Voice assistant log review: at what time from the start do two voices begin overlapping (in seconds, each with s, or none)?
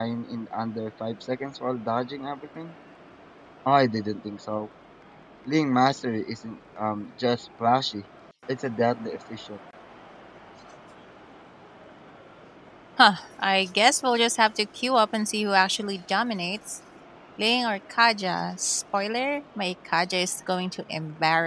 none